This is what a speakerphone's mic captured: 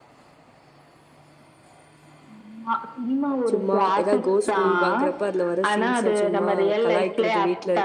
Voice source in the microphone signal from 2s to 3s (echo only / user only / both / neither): echo only